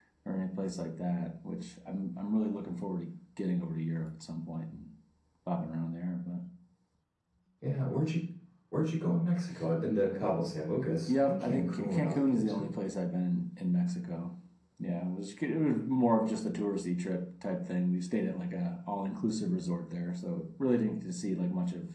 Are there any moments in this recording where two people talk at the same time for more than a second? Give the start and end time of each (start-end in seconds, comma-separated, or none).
11.1-12.7